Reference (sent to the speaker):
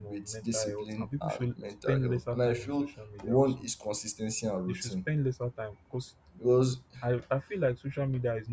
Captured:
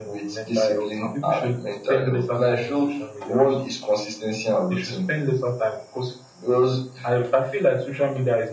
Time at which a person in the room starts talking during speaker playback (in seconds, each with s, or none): none